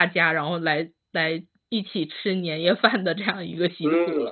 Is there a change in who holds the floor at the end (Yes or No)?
Yes